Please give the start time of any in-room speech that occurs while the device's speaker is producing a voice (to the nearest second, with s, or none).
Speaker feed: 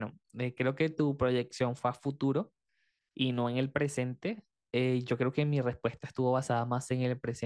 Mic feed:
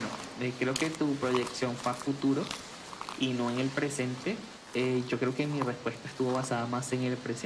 none